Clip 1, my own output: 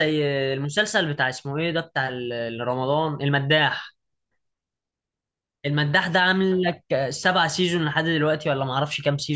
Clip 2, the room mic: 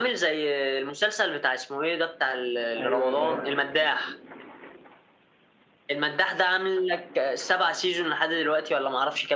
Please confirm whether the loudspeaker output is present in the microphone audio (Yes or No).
Yes